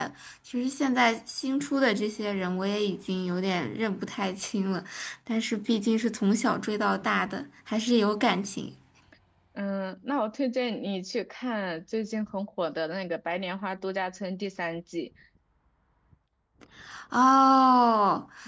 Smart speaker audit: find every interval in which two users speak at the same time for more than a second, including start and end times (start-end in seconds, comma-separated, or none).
none